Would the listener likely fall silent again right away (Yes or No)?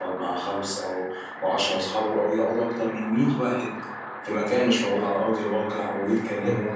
No